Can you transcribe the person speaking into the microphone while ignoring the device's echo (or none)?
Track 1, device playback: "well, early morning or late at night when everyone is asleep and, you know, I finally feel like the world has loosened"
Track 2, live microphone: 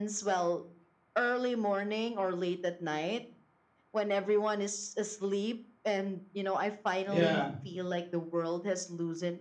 Yeah.